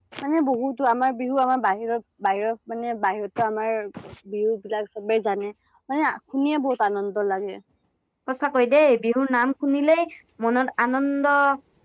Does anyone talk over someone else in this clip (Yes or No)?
No